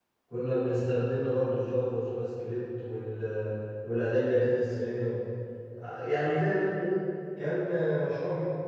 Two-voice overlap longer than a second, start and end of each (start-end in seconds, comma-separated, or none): none